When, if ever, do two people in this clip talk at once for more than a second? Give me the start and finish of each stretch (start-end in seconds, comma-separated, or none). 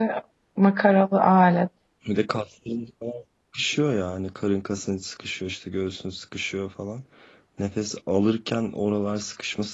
none